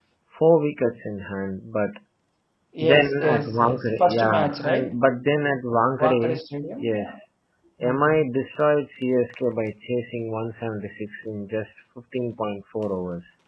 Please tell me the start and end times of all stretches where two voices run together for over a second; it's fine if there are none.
2.8-5.0

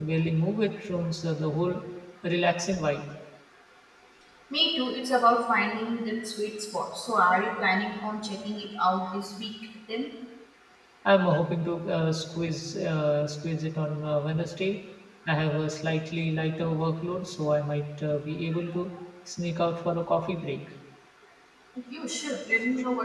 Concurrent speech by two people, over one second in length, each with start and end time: none

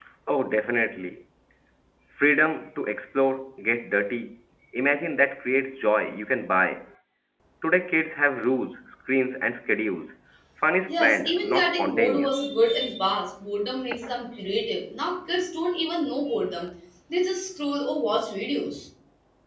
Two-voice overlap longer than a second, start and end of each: 10.9-12.4

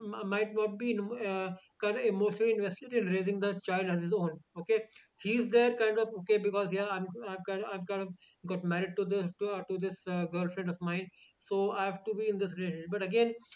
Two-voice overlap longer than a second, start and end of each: none

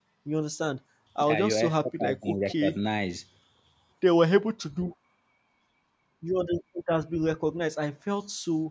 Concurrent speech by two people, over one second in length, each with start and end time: 1.2-2.8

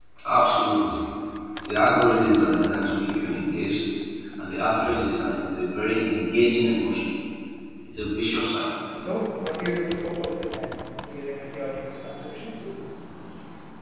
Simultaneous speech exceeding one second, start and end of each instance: none

